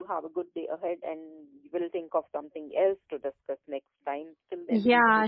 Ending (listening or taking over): taking over